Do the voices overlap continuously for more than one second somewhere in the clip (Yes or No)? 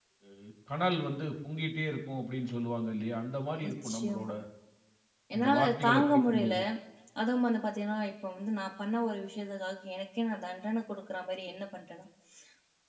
Yes